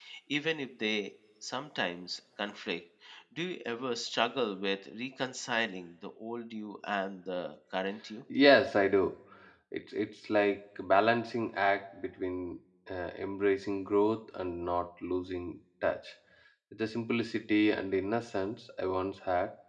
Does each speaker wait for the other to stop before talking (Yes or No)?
Yes